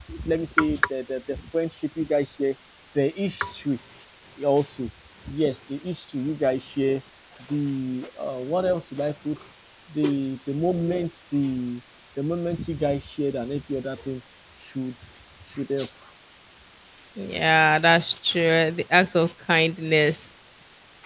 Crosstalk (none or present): none